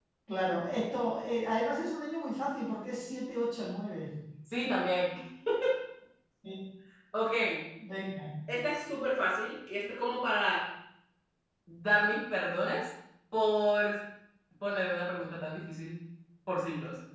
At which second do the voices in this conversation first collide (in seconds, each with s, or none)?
none